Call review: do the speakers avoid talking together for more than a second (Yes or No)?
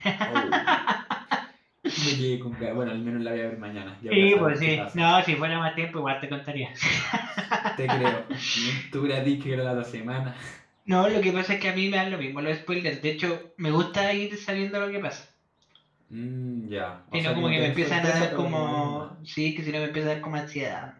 No